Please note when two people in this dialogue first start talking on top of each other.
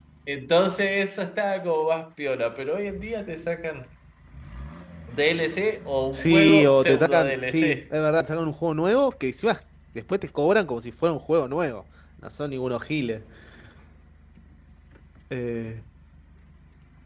6.1 s

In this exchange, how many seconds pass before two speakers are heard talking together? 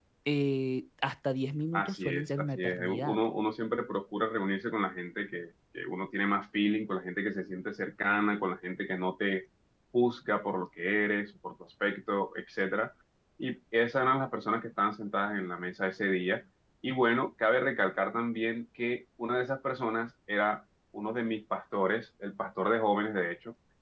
1.7 s

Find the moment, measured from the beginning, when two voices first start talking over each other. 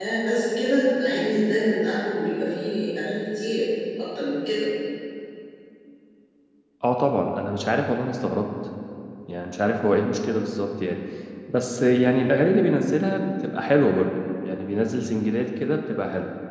none

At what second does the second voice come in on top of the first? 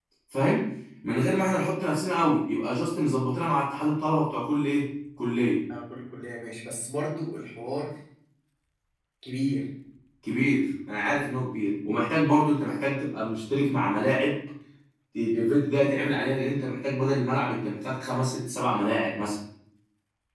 none

